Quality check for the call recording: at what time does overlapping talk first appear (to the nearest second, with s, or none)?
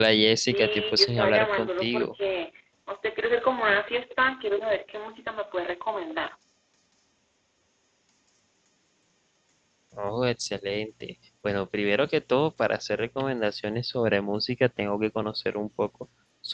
1 s